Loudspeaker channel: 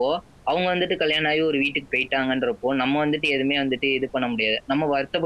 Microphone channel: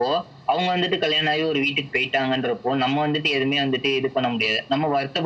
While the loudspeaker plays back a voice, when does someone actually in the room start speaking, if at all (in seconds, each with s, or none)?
none